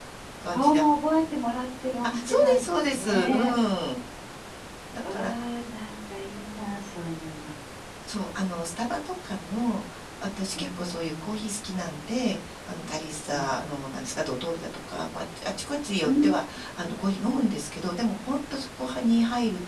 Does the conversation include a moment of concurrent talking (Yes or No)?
Yes